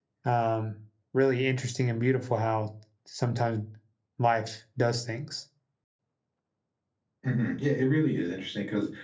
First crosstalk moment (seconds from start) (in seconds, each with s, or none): none